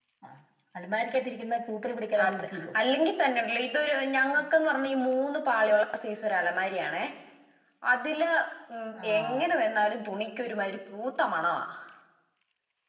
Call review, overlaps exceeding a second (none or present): none